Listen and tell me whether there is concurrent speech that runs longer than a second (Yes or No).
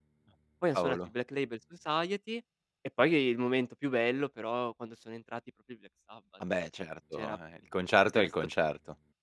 No